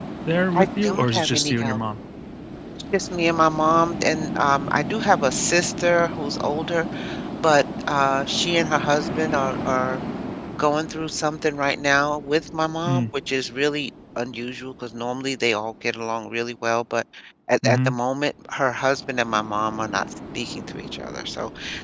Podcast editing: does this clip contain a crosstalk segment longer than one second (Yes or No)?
Yes